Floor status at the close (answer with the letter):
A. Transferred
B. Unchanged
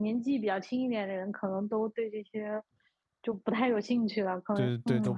A